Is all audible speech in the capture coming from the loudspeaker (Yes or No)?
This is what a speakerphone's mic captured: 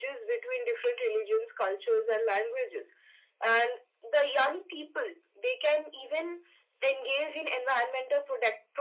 Yes